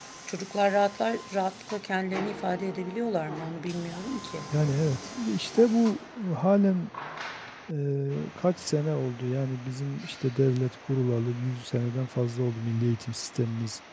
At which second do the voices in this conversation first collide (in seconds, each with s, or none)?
none